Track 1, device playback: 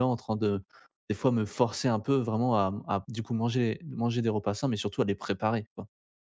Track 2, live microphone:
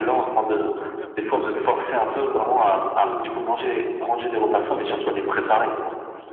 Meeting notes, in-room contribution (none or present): present